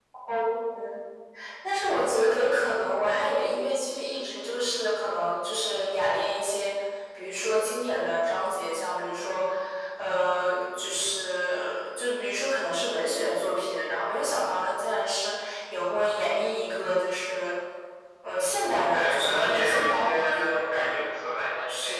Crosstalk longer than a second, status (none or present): present